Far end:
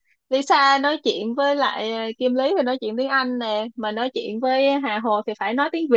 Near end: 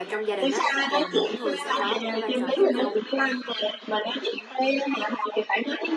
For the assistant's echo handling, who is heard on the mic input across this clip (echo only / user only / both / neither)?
both